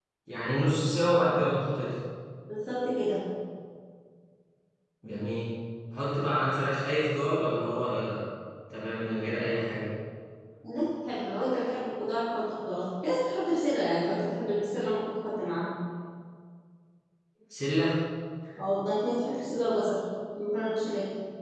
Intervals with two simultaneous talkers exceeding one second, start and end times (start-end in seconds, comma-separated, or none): none